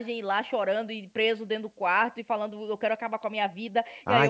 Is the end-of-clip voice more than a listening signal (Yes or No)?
No